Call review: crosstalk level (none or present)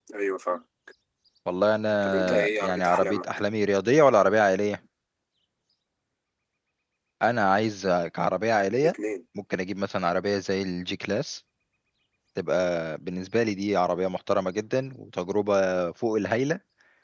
present